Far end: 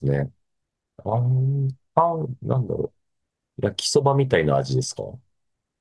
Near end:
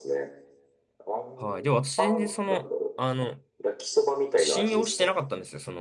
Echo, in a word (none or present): present